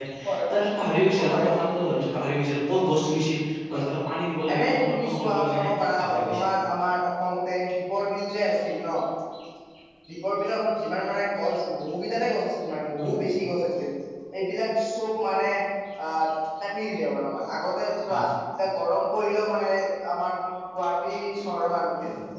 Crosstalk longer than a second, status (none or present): present